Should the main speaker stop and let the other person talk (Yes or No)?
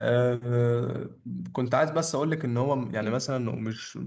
No